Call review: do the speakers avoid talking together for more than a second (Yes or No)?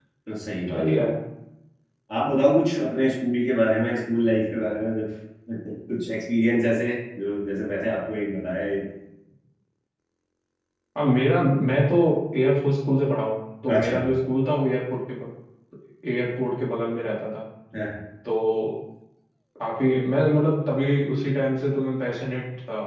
Yes